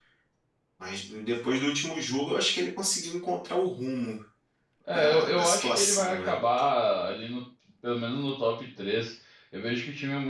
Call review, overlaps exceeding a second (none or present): present